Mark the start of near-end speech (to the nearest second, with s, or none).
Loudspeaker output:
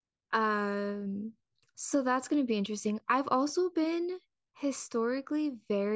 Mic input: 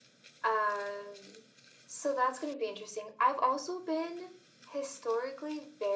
none